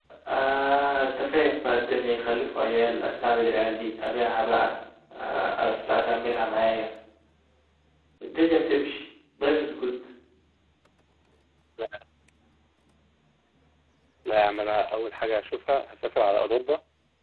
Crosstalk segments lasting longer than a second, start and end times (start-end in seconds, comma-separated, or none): none